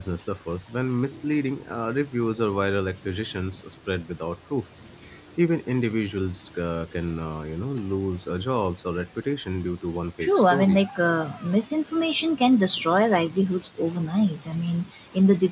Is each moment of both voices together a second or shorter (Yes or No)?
Yes